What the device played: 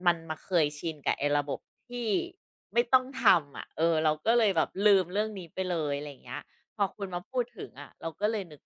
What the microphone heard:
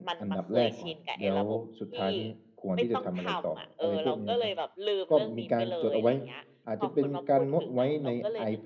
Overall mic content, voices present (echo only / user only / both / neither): both